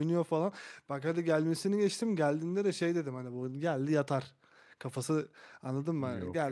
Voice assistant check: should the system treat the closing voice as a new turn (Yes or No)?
No